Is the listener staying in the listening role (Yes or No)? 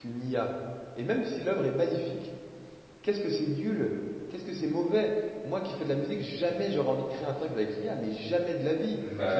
No